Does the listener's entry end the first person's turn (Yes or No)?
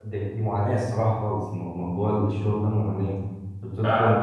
Yes